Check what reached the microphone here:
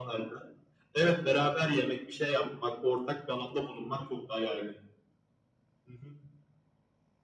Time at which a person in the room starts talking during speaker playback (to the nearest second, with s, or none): none